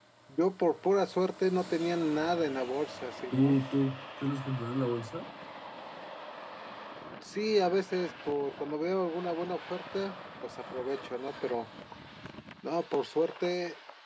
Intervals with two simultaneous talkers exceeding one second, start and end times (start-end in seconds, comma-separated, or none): none